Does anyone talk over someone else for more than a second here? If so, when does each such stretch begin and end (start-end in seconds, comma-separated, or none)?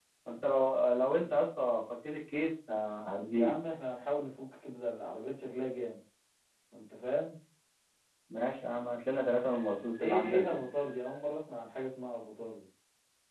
none